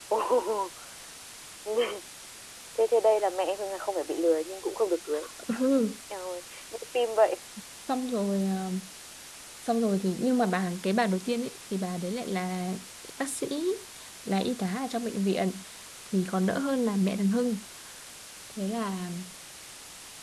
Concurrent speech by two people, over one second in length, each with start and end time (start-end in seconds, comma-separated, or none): none